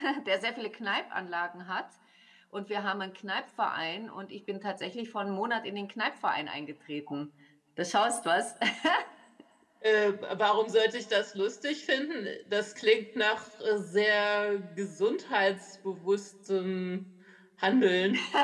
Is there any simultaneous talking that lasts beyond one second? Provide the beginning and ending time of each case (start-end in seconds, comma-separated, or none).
none